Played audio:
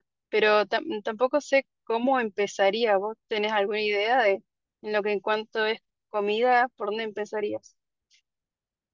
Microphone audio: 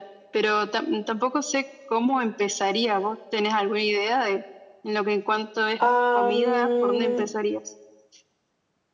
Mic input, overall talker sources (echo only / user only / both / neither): both